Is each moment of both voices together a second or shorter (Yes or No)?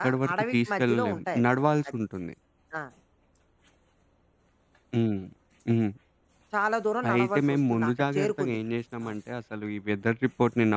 No